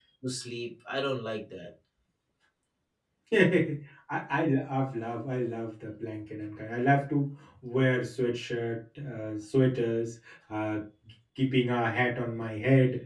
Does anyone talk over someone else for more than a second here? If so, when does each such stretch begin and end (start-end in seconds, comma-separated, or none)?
none